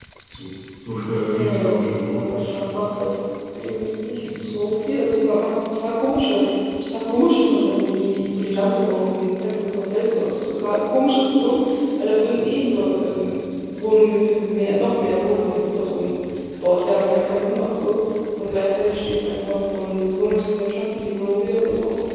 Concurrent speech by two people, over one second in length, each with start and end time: 1.0-2.8

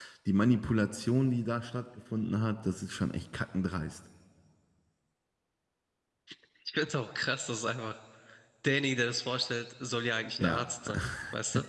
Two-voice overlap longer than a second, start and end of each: none

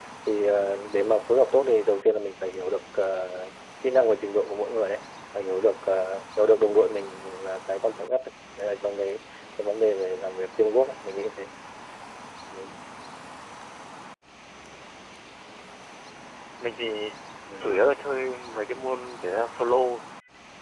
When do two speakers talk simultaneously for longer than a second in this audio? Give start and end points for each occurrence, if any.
none

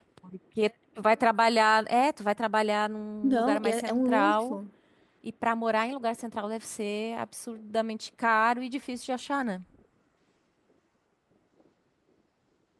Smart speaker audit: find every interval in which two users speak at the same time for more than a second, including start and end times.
3.2-4.6

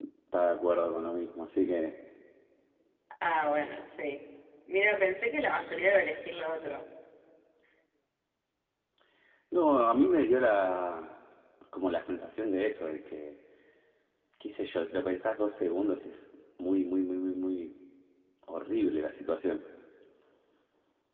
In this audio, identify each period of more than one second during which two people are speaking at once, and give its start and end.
none

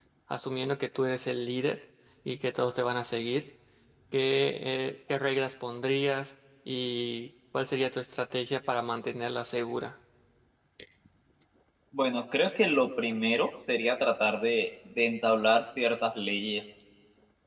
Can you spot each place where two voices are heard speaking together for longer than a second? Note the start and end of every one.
none

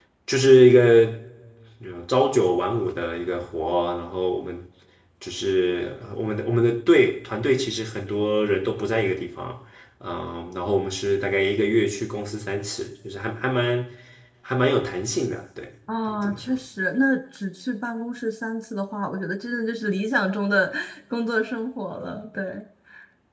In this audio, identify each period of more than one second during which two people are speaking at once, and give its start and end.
none

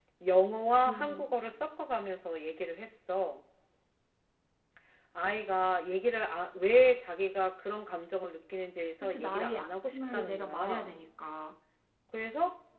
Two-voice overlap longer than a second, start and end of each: 9.0-10.9

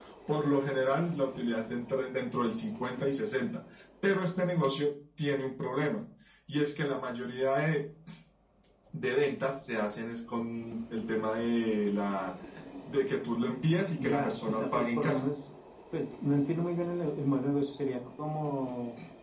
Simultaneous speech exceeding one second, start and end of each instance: 14.0-15.2

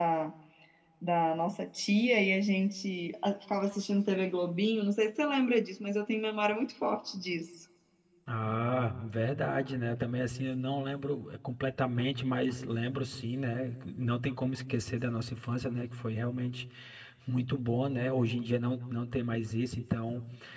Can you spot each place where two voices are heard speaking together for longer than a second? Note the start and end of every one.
none

